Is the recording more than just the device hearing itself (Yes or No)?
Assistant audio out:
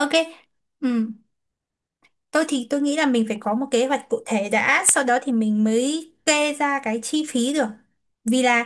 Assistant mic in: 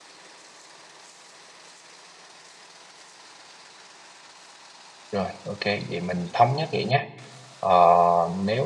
Yes